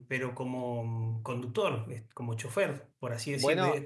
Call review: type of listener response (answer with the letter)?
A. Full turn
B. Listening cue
A